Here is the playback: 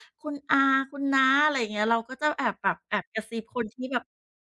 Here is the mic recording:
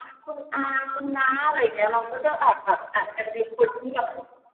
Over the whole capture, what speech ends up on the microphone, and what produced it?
echo only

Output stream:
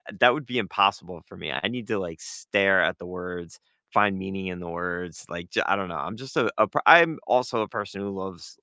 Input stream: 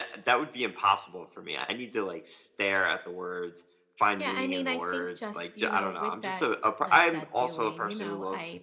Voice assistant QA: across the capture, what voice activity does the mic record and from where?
both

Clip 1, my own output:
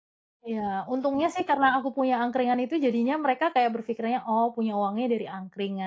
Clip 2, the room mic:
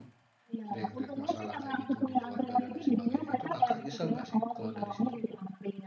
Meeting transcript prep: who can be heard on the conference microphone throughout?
both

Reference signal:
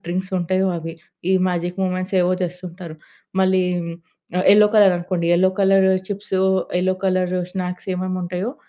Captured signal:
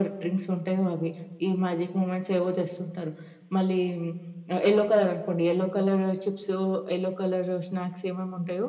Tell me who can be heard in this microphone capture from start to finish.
echo only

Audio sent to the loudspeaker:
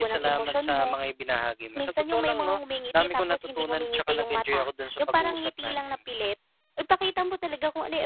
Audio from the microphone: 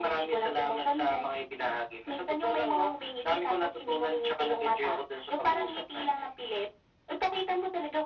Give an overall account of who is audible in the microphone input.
echo only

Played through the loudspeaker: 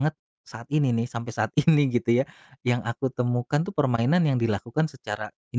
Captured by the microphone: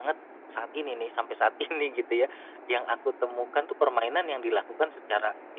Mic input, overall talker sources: echo only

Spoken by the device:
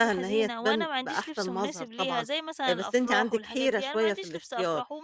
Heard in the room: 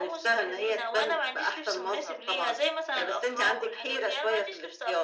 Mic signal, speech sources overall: echo only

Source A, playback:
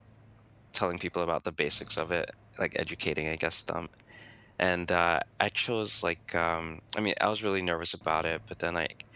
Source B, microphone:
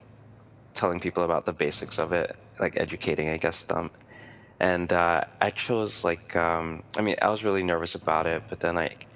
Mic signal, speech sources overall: echo only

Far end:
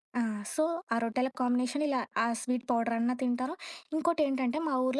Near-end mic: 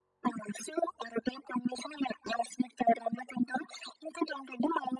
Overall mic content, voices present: echo only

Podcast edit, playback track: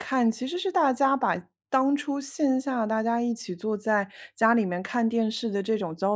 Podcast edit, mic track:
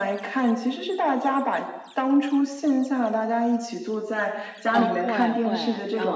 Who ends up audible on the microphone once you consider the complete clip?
both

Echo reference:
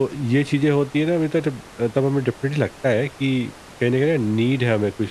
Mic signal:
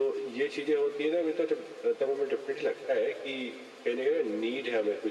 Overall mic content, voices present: echo only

